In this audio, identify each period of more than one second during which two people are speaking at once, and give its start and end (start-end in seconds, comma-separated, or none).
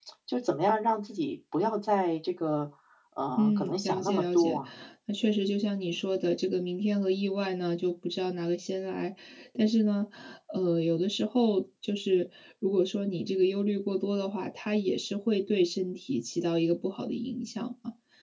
3.4-4.6